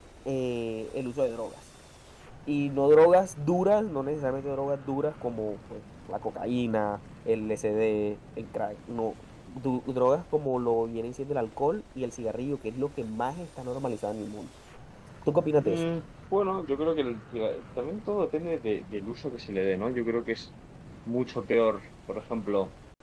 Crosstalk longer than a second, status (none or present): none